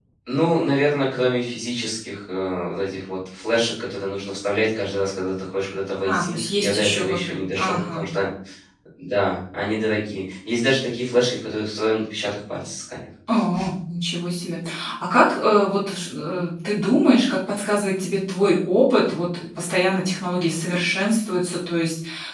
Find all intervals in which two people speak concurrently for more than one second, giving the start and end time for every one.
6.0-8.0

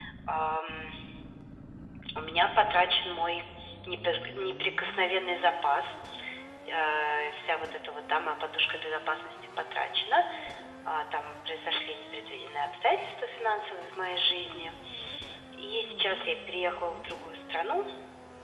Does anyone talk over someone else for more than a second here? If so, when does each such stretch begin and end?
none

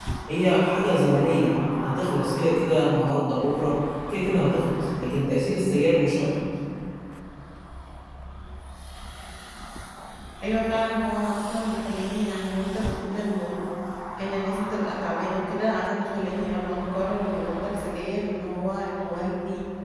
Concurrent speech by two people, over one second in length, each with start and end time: none

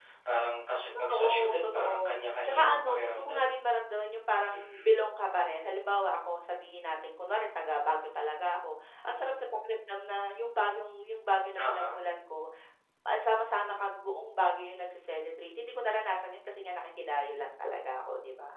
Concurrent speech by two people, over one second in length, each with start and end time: 1.1-3.5

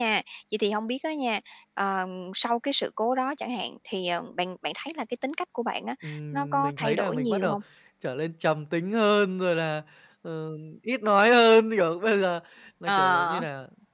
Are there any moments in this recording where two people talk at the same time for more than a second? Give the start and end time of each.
6.3-7.6

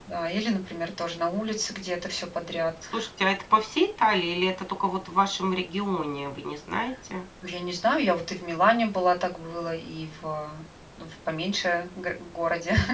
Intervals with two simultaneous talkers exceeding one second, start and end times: none

